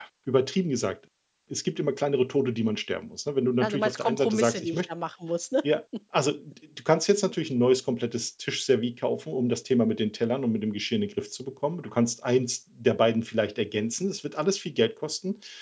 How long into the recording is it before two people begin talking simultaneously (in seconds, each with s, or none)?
3.6 s